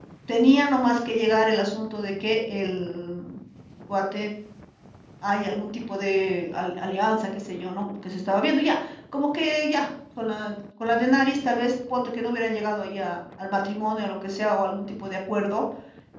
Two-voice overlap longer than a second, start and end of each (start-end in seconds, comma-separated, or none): none